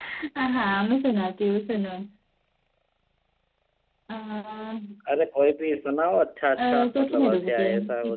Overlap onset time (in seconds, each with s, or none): 6.6 s